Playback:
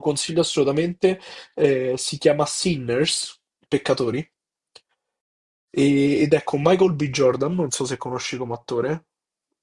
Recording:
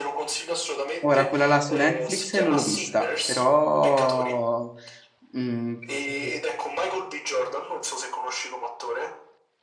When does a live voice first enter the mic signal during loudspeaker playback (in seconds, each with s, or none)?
1.0 s